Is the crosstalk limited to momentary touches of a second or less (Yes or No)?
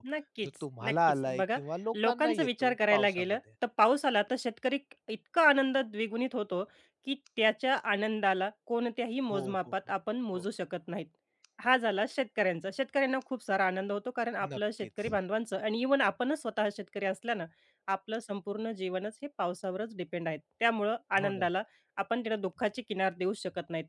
No